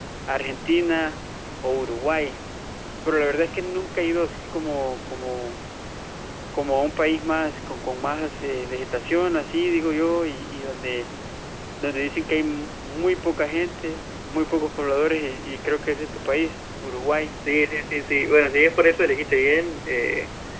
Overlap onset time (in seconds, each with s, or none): none